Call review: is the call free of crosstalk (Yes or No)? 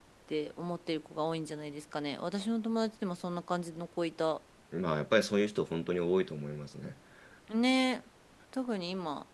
Yes